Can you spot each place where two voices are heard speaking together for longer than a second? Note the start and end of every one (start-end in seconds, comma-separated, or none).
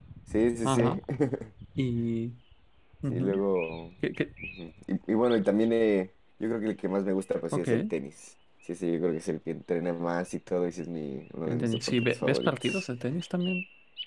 11.6-12.8